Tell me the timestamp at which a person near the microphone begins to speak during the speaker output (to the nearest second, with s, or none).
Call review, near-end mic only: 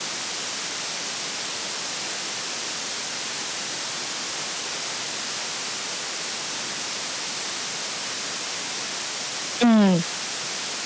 10 s